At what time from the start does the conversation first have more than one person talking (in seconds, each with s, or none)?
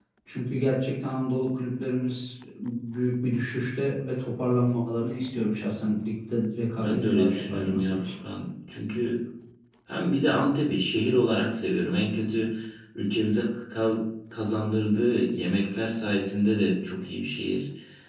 6.8 s